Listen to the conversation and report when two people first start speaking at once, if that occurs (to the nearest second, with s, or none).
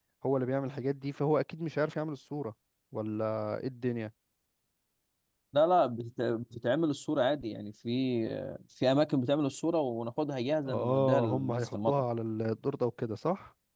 11 s